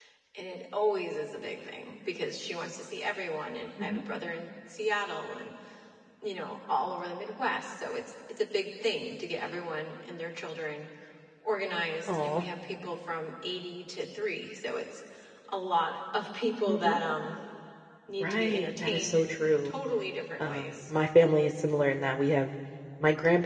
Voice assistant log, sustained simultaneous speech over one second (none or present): present